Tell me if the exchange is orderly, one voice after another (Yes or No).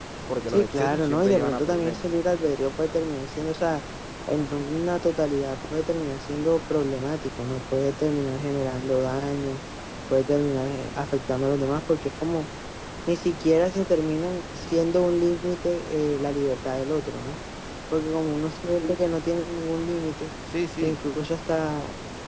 No